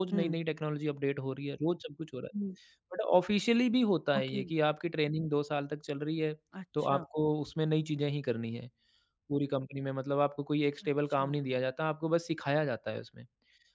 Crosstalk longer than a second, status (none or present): none